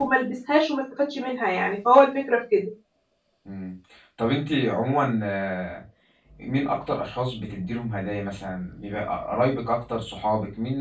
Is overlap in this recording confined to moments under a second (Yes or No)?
Yes